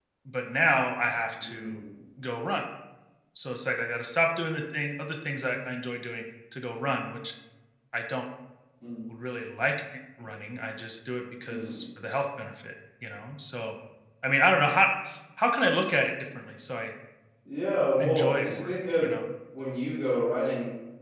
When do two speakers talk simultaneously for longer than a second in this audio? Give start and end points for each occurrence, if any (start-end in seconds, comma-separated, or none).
18.0-19.2